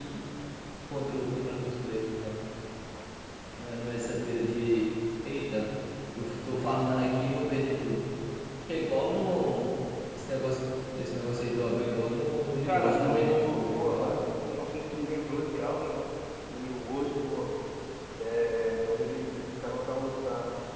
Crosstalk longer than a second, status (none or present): present